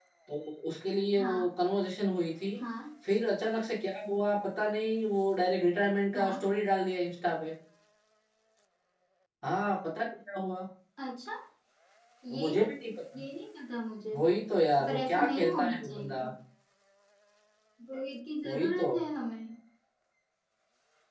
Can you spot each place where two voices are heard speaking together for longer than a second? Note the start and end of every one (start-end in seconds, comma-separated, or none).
14.8-16.2